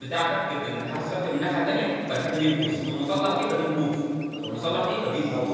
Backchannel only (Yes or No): Yes